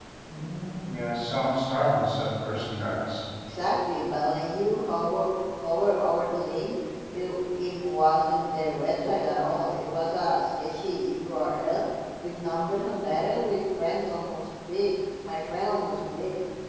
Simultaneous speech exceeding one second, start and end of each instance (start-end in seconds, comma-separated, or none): none